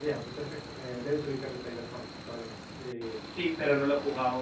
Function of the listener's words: taking over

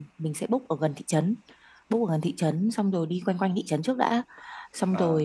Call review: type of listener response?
listening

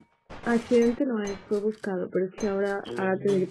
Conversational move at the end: listening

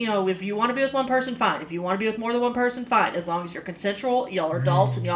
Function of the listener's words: listening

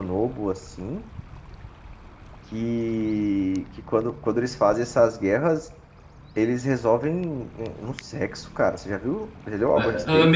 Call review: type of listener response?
taking over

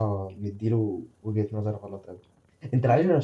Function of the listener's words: listening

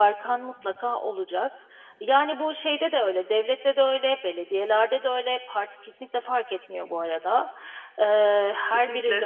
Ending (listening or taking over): listening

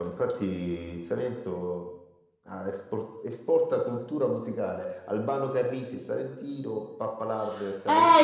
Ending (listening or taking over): taking over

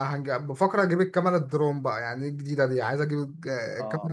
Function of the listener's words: listening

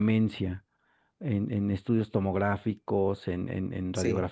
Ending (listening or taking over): listening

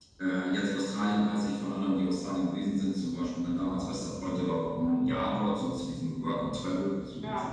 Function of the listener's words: listening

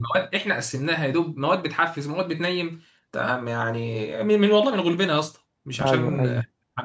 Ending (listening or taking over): listening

